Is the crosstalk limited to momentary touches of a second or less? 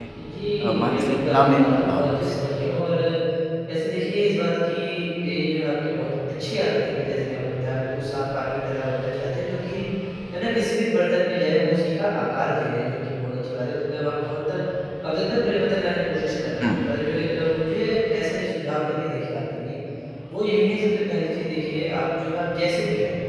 No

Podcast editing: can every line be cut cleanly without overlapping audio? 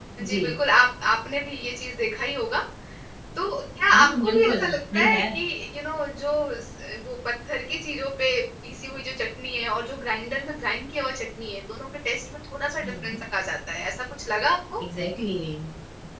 No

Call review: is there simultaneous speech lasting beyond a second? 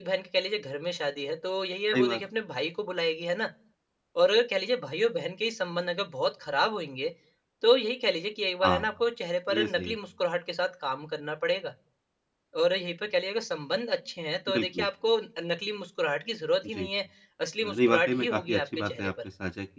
Yes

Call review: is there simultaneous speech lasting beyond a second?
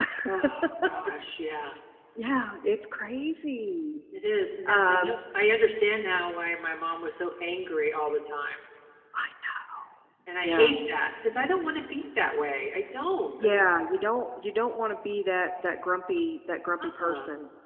No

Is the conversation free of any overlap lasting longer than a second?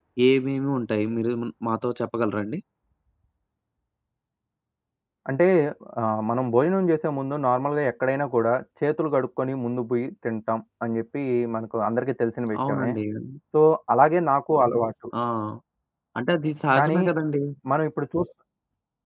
Yes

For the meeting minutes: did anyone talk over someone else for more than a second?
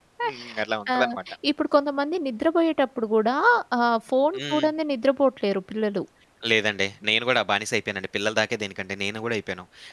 No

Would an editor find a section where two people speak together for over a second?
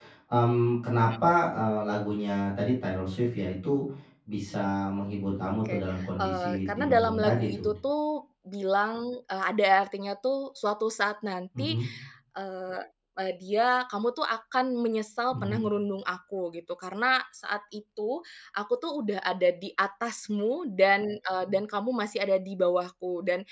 Yes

